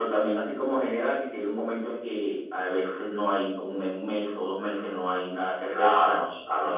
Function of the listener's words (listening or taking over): taking over